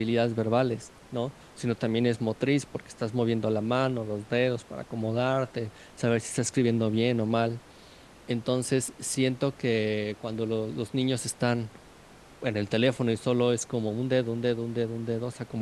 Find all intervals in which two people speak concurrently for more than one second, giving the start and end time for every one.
none

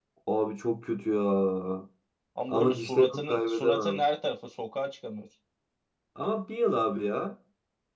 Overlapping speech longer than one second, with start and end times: 2.5-4.0

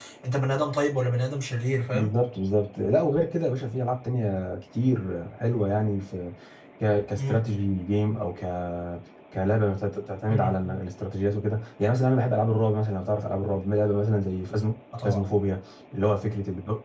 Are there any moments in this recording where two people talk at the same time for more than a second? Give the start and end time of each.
none

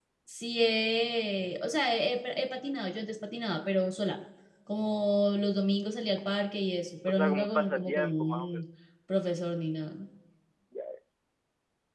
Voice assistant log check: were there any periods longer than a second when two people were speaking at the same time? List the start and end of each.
7.1-8.5

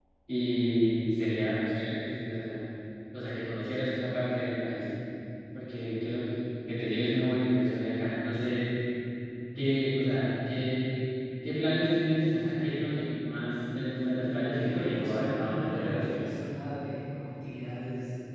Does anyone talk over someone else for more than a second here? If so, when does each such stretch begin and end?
14.2-16.2

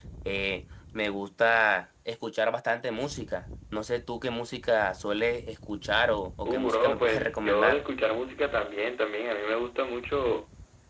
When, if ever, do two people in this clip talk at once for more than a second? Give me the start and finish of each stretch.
6.5-7.8

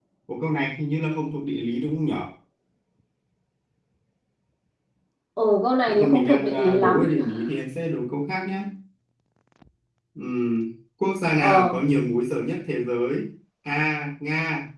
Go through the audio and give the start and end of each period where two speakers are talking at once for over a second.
5.9-7.1

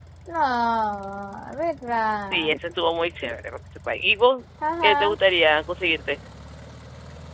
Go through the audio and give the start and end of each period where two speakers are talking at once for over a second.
none

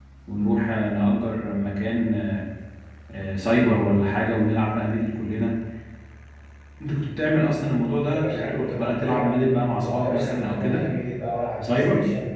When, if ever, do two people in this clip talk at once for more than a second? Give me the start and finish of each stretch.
8.0-10.8

